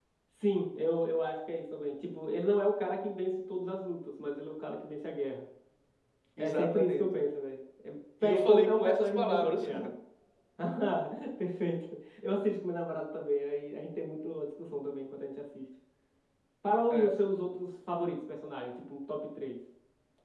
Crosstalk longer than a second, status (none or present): present